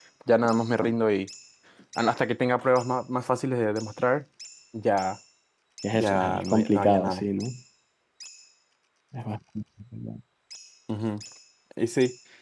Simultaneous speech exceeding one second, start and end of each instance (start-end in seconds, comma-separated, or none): 5.9-7.2